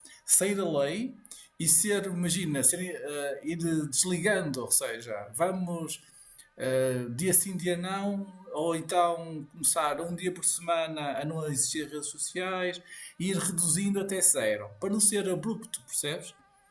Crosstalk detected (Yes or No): No